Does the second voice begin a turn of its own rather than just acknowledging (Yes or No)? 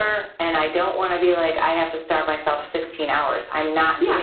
Yes